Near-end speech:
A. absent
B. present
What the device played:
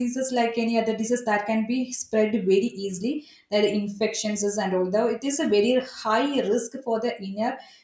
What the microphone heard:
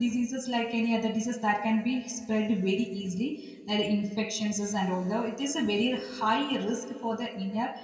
A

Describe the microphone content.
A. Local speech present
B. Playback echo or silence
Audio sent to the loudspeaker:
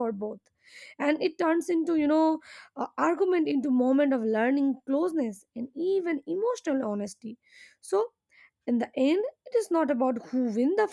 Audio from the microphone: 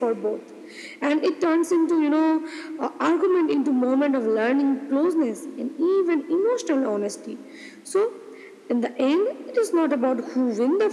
B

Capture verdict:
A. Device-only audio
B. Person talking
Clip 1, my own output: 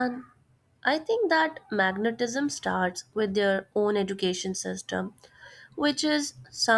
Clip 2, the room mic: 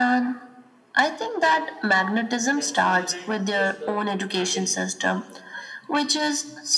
B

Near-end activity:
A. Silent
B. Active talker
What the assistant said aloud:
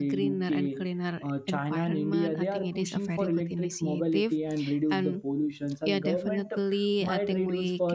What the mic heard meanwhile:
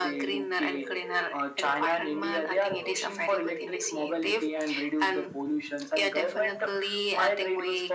A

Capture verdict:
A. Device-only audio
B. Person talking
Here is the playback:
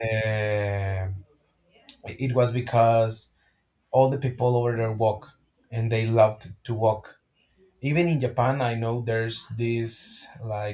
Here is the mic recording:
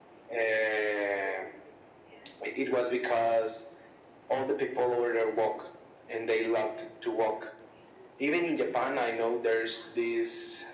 A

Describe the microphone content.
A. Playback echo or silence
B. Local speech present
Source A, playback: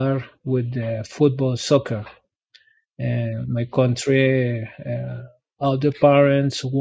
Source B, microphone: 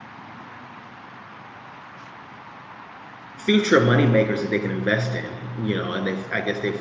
B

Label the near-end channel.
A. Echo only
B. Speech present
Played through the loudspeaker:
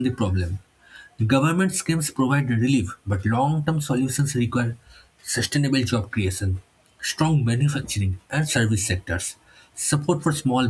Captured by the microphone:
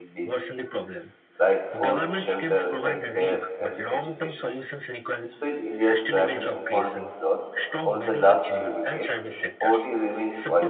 B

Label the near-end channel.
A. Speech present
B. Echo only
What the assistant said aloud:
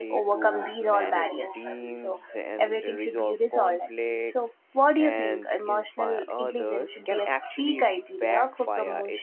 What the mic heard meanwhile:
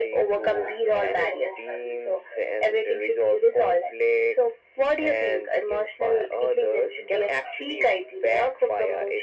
B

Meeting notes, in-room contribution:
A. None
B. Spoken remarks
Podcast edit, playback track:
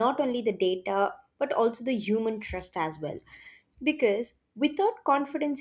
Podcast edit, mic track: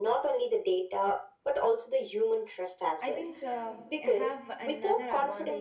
B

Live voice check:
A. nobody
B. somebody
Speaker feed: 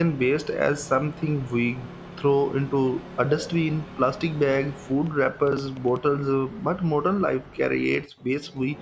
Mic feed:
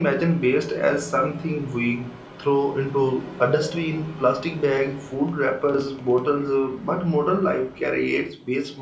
A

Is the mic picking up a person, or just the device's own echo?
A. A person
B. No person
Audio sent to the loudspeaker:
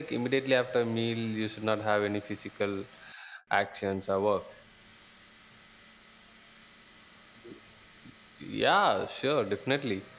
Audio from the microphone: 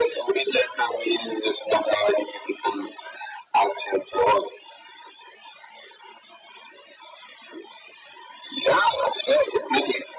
B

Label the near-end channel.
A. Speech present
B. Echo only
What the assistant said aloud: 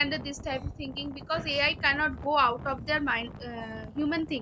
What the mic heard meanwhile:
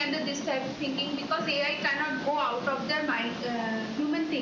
B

